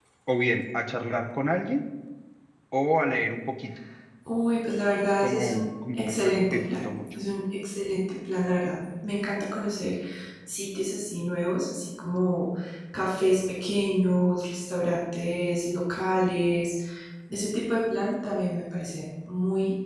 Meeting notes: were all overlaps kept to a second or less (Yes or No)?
No